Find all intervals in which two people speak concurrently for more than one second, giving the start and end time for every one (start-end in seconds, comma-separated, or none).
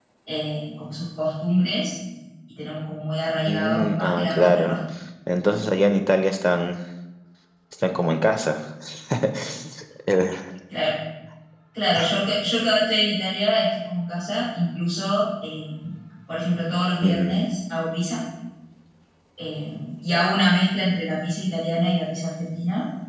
3.5-4.8